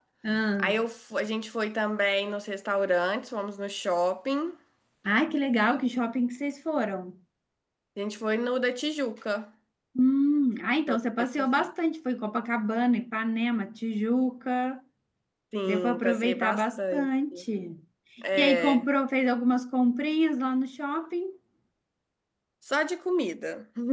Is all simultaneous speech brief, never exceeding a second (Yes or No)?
No